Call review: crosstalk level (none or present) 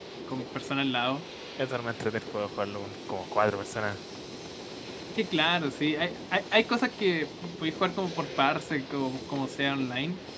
none